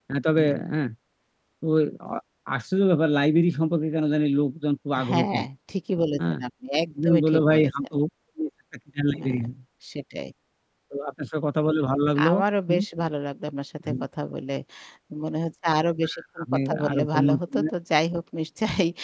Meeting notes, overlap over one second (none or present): present